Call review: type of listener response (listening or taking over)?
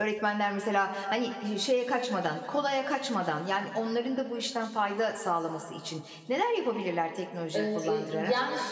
taking over